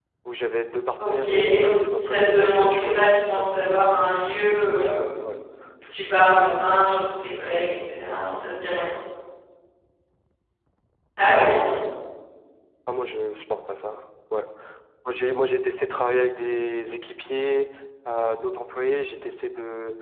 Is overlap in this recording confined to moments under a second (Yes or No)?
No